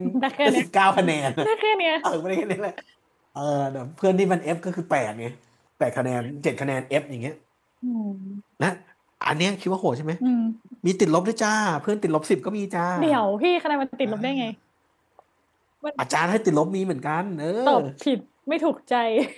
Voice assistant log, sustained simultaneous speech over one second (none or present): none